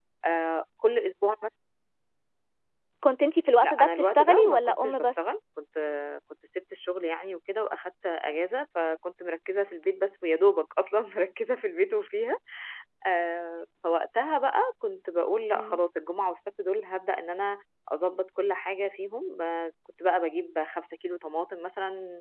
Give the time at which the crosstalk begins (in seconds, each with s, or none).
3.6 s